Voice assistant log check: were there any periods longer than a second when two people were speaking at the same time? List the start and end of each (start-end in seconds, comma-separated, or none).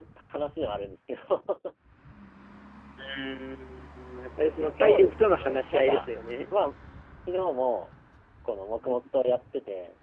4.6-6.0